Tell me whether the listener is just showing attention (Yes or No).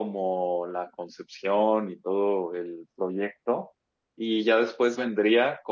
Yes